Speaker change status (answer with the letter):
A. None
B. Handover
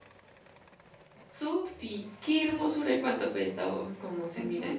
B